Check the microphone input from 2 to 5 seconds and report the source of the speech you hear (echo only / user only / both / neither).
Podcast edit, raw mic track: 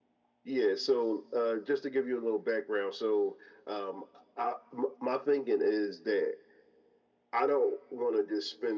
echo only